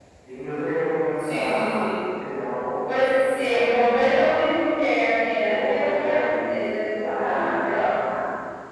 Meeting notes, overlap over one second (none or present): present